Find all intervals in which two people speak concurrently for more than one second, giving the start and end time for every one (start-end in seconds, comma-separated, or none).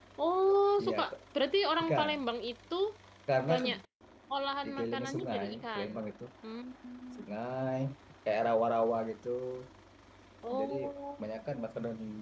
4.6-5.9